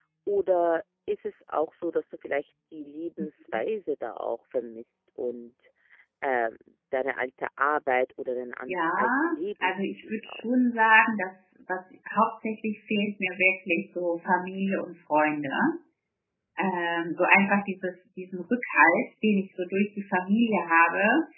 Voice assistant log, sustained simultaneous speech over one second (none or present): present